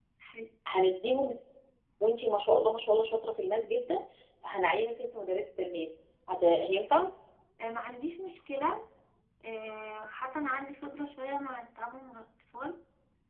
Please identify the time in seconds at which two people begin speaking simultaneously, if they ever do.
none

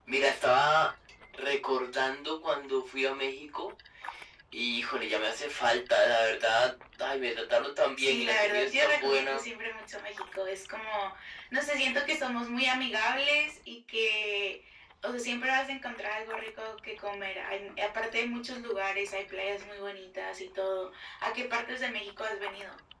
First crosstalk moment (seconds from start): 8.0 s

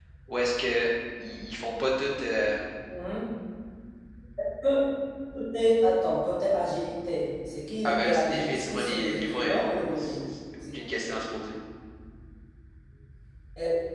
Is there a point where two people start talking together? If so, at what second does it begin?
7.8 s

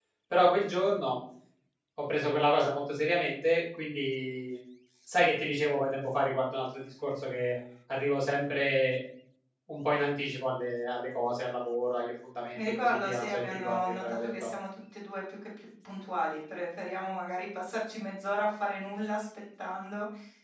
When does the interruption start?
12.5 s

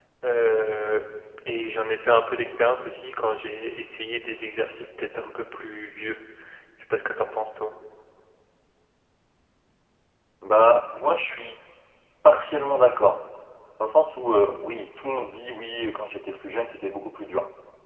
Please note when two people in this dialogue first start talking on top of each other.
none

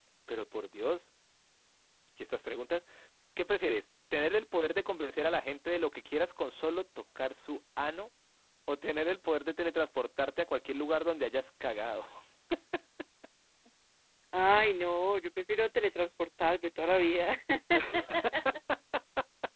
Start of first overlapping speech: none

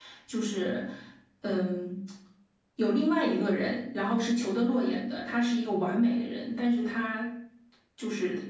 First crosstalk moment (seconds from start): none

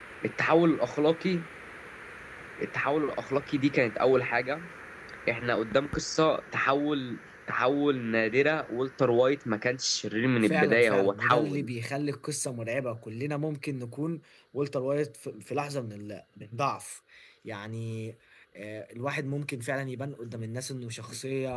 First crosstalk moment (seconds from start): 10.4 s

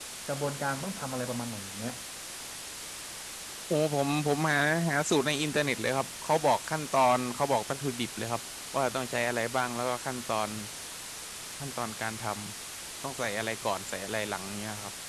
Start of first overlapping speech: none

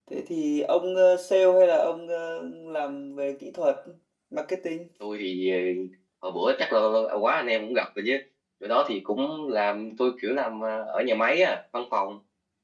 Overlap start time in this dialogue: none

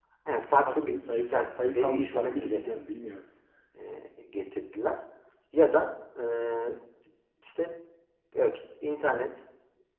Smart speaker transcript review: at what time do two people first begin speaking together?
0.8 s

